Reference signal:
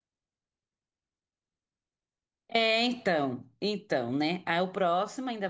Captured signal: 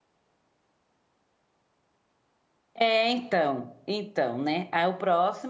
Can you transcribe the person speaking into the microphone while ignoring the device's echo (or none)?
none